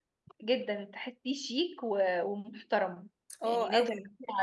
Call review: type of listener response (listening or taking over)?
listening